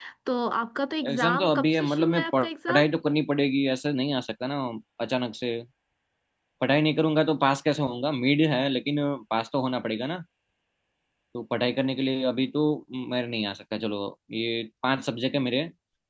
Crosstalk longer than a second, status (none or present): present